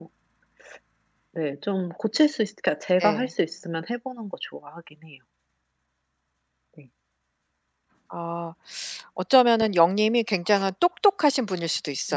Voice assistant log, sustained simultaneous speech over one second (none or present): none